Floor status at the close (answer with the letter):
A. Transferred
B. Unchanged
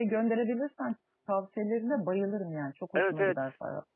A